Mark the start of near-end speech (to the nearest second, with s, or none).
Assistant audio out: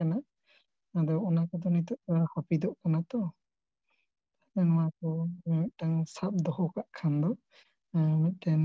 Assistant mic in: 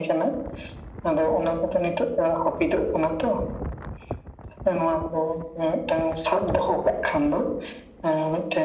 none